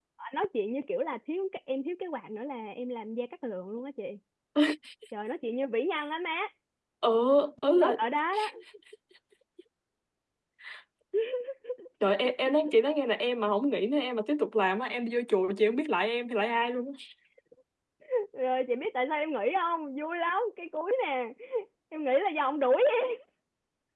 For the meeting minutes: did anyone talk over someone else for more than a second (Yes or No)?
No